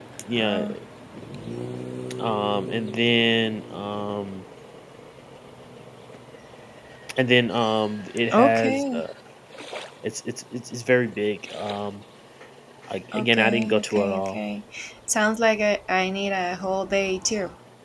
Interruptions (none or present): present